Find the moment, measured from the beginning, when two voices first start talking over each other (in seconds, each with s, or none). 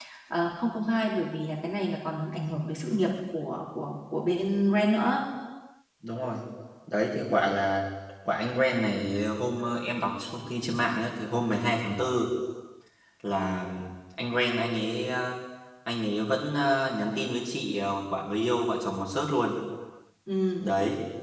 none